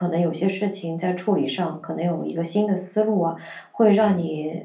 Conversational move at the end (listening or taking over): listening